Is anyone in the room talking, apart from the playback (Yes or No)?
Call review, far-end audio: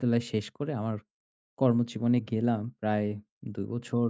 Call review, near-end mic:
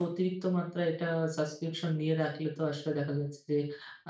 Yes